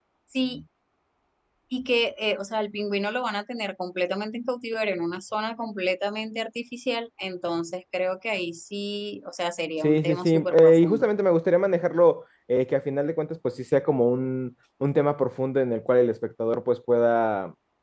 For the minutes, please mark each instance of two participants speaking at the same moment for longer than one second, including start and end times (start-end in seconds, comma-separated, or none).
9.8-11.1